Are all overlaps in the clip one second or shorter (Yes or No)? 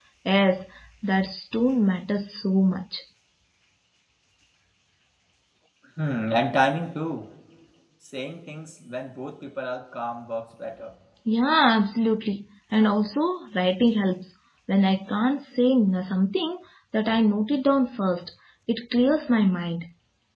Yes